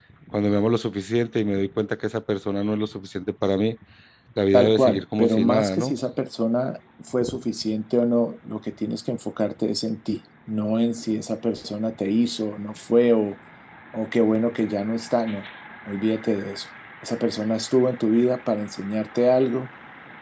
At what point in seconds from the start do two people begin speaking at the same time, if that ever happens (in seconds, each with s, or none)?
4.5 s